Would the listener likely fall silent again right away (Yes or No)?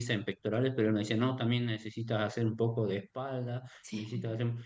Yes